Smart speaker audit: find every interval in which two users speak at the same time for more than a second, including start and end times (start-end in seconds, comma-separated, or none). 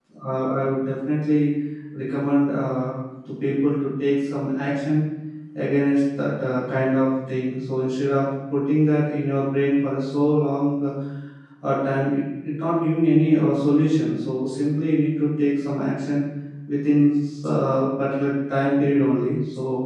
none